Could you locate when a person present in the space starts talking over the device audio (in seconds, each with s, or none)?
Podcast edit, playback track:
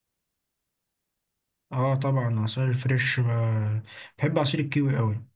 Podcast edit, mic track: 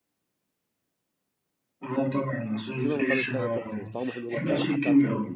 2.8 s